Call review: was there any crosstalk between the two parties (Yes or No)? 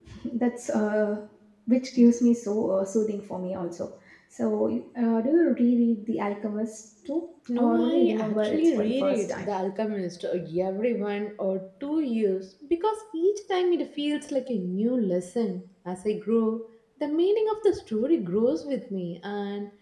Yes